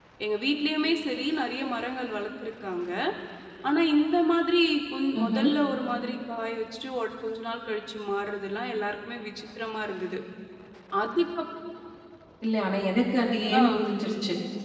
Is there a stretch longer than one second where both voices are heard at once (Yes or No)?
No